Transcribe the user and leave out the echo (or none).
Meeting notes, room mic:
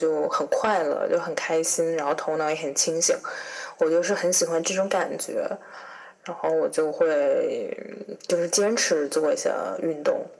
none